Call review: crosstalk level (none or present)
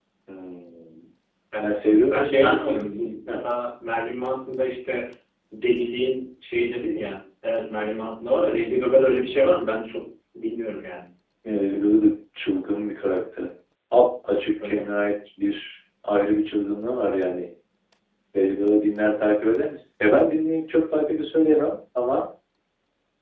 present